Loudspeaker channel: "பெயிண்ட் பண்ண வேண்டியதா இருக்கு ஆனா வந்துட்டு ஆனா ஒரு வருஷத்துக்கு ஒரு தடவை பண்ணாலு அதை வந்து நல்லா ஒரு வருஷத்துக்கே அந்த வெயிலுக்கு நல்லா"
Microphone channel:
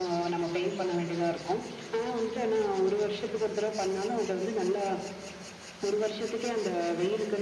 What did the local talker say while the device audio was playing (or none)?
none